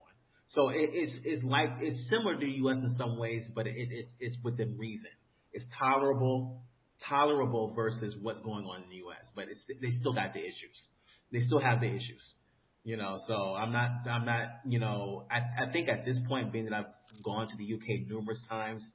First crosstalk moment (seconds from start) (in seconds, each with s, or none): none